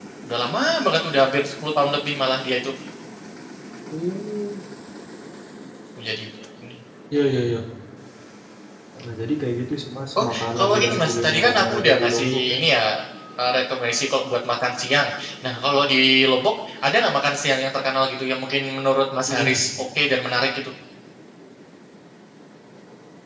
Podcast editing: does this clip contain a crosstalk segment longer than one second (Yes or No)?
Yes